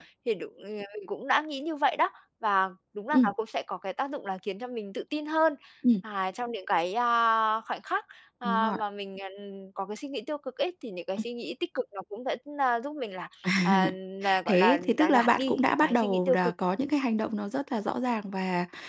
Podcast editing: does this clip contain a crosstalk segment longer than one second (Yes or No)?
Yes